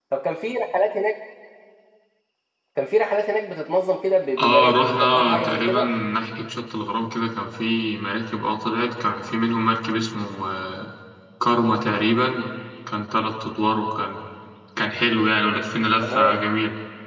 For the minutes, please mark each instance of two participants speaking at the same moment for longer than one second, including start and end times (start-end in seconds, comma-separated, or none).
4.4-5.9